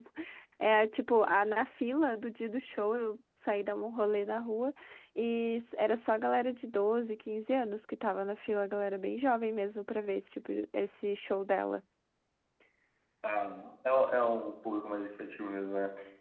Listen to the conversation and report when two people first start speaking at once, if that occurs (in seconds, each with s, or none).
none